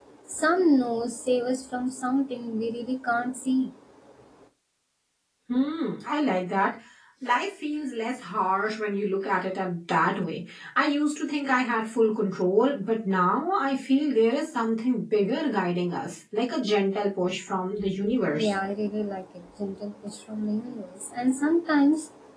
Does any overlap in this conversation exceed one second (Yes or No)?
No